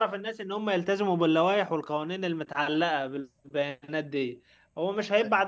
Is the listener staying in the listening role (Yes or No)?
Yes